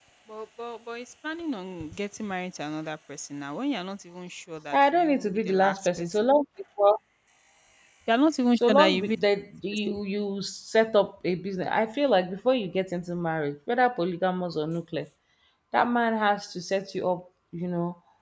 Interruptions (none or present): present